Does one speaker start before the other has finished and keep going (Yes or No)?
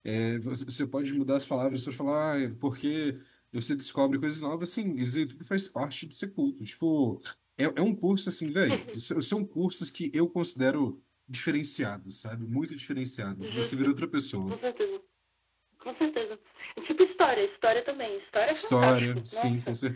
Yes